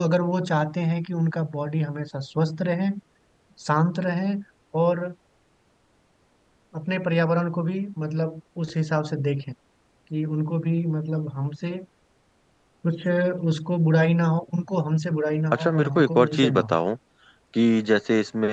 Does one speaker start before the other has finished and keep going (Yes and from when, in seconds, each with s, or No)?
Yes, from 15.5 s